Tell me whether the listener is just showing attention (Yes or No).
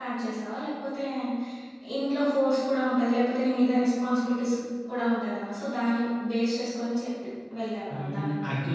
No